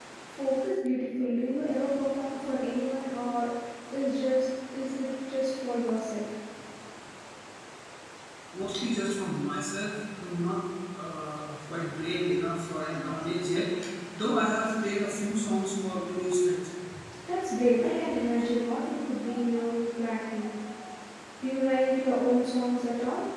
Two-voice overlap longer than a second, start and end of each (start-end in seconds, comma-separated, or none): none